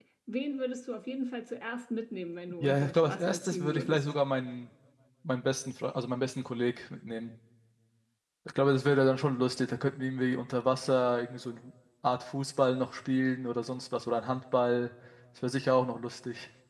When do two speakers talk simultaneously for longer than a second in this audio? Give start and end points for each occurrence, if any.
2.6-4.0

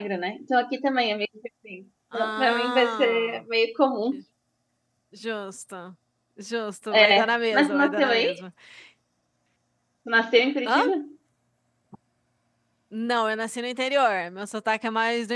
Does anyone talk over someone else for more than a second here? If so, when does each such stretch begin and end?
2.1-3.4, 6.9-8.4

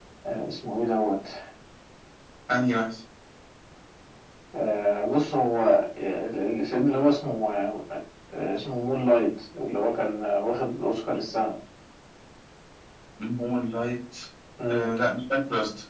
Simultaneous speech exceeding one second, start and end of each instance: none

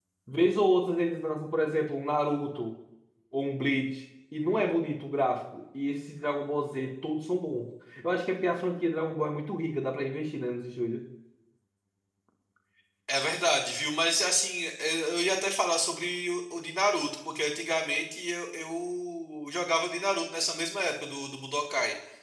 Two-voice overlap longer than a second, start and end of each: none

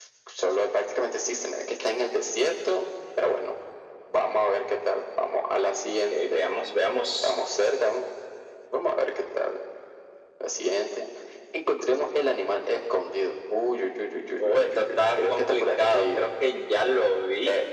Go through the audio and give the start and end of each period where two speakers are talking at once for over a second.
14.4-16.2

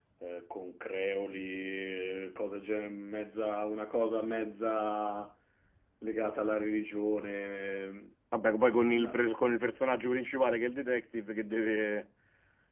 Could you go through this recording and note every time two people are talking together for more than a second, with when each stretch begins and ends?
none

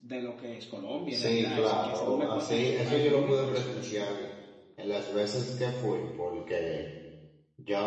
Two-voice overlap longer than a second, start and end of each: 1.1-3.9

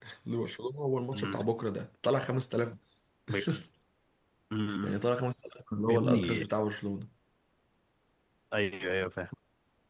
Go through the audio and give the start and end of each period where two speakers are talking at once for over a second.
none

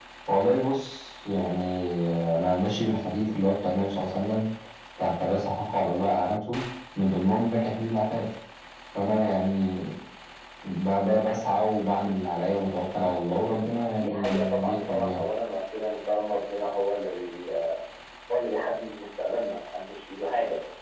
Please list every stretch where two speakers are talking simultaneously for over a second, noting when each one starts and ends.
14.0-15.2

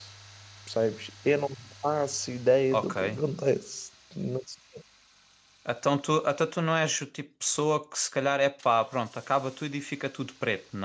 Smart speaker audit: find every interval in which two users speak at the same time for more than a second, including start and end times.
none

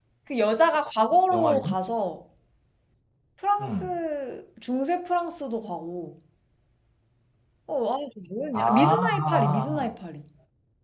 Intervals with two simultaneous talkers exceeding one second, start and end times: 8.5-9.9

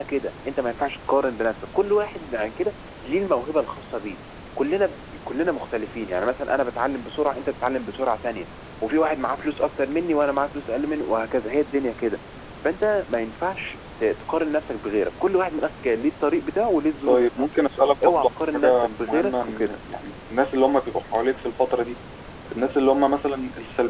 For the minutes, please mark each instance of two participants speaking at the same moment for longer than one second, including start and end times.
18.2-19.7

